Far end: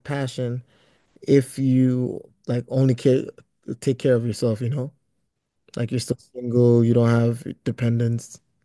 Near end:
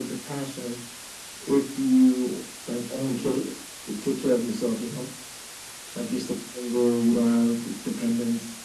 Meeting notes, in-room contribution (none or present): none